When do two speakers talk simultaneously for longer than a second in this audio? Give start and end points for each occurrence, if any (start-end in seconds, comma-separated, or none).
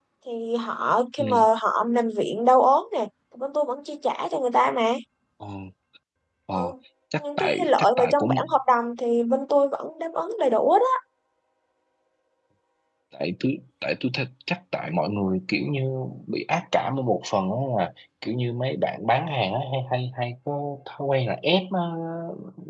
7.2-8.5